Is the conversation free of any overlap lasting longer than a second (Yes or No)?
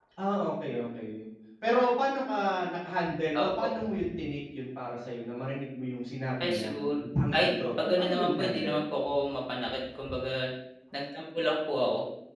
No